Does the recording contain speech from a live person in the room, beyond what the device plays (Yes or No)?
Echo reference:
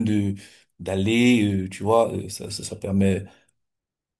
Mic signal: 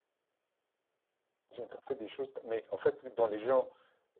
Yes